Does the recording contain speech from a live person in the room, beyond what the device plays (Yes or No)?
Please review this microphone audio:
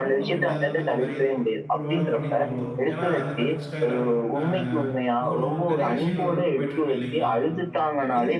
Yes